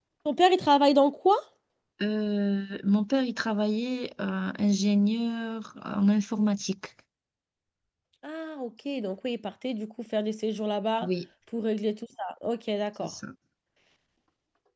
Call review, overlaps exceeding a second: none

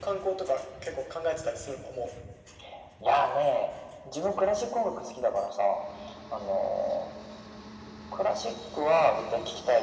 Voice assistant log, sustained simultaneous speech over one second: none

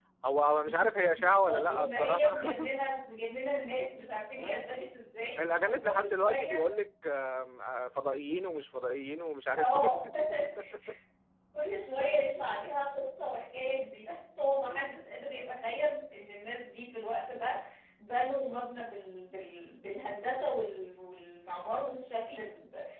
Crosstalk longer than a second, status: present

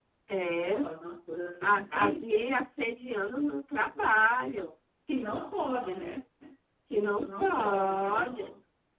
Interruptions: present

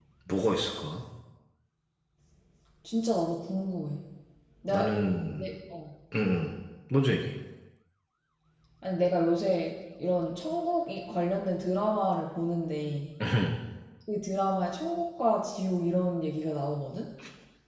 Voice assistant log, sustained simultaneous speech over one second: none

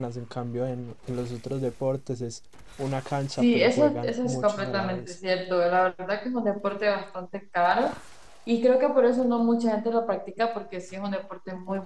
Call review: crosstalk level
present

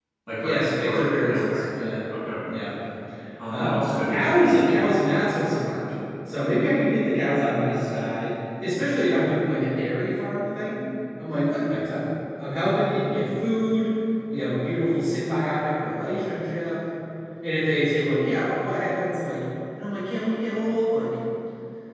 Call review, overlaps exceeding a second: present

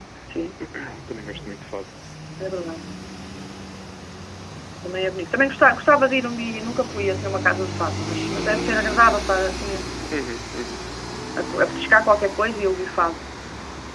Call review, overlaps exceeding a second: none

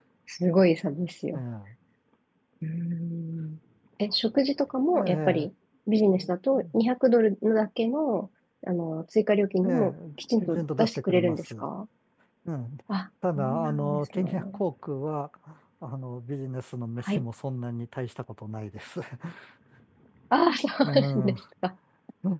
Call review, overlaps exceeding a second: present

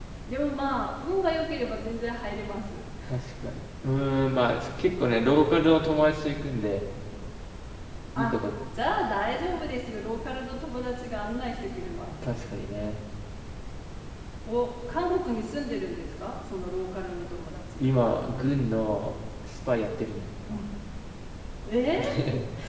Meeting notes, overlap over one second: none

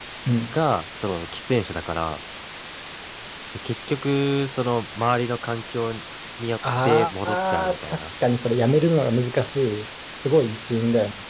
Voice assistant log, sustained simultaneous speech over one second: present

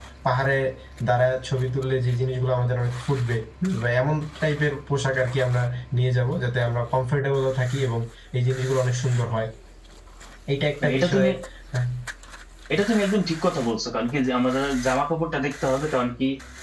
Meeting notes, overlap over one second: none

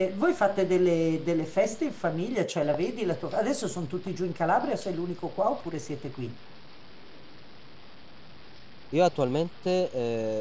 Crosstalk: none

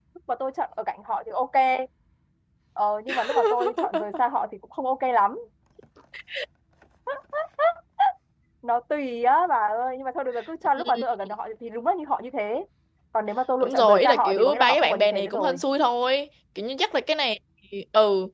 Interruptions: present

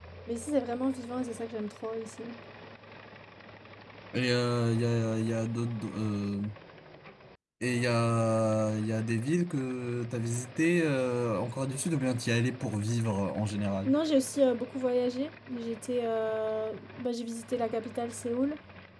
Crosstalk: none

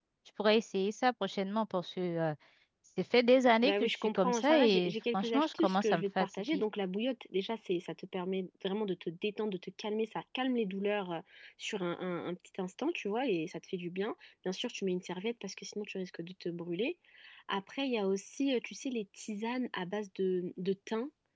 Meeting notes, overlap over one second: present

